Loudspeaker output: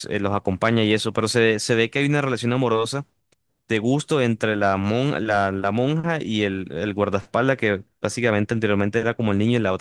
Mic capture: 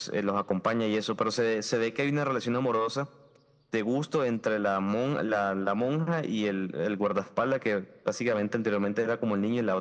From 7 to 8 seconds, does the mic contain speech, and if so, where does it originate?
echo only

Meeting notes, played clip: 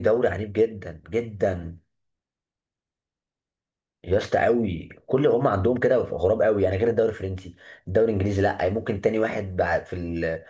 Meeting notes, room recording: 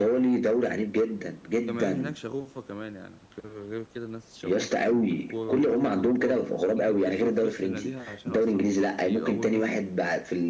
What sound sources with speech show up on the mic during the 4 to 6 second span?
both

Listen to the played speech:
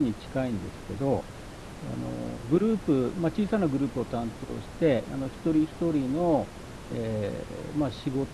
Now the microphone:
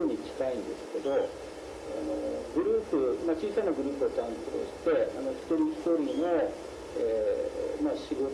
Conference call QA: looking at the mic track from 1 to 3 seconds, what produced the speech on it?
echo only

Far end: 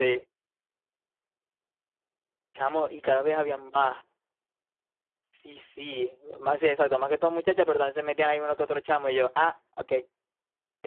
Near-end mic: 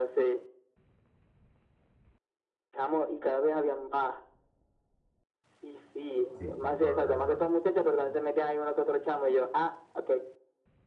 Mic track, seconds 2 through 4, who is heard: echo only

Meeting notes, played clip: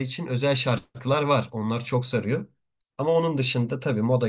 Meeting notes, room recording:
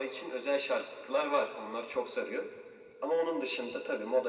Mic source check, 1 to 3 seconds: echo only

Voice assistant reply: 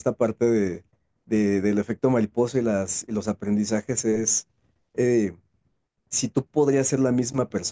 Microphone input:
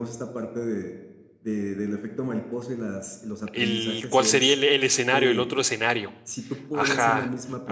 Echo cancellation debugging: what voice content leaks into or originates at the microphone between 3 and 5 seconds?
both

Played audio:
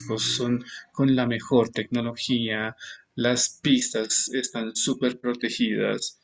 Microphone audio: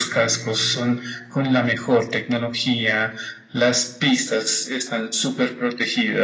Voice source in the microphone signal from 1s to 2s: echo only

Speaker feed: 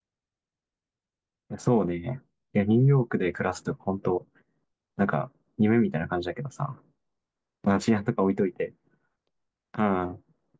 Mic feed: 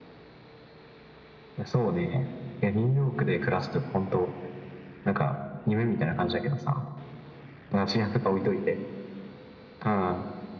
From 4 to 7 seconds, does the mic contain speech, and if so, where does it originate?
echo only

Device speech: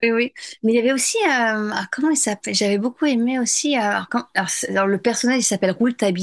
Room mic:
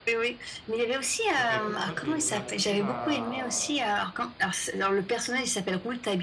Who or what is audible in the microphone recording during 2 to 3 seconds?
both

